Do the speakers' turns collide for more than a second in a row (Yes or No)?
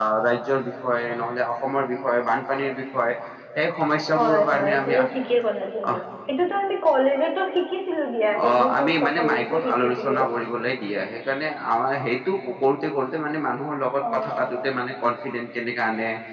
Yes